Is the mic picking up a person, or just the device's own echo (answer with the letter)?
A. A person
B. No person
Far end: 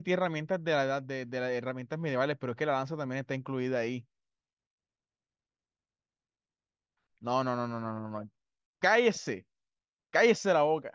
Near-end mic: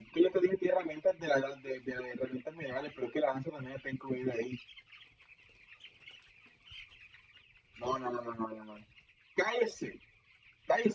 B